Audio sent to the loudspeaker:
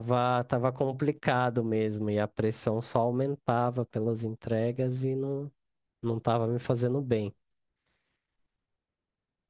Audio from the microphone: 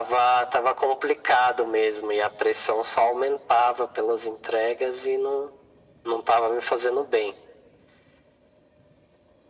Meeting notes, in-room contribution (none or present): none